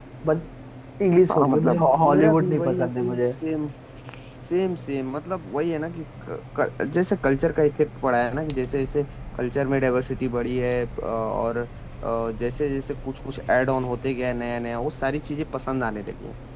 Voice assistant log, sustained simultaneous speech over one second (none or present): present